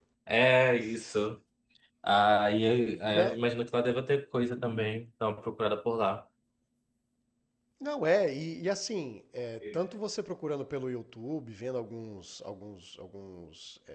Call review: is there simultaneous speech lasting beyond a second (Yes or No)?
No